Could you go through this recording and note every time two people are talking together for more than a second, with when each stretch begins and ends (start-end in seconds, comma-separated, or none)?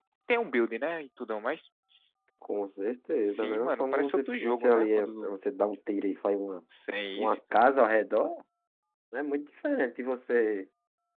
3.2-5.4